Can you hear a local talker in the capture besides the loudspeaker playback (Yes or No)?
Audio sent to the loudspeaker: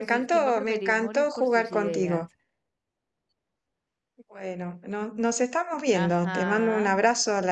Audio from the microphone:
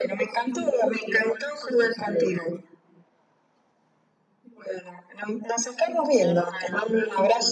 No